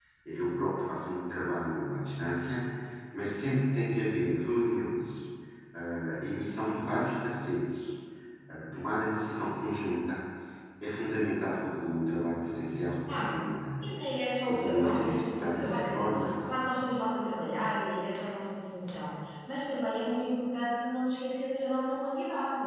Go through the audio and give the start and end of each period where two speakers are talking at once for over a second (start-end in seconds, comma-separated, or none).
14.4-16.2